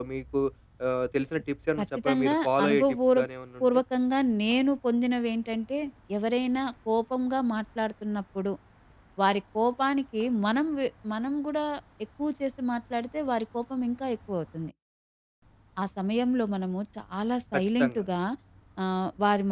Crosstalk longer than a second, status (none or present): present